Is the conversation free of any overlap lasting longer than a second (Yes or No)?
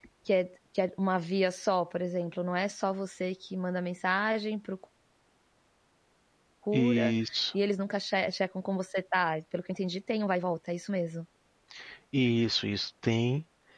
Yes